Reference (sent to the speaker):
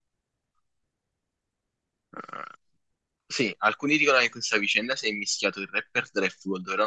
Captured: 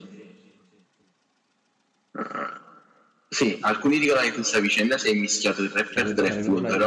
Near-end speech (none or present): present